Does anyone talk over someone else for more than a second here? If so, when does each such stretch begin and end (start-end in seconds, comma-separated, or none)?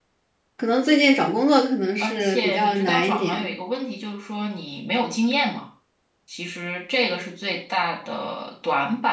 2.0-3.5